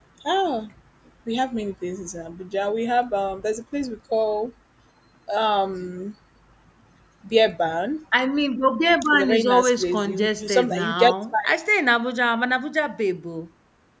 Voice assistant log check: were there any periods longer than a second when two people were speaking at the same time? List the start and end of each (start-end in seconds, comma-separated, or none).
9.1-11.1